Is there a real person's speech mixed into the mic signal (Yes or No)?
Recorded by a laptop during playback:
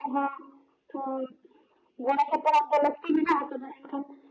No